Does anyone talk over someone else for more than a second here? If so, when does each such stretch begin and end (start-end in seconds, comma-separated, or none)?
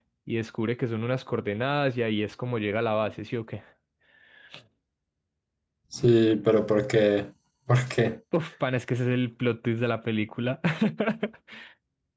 none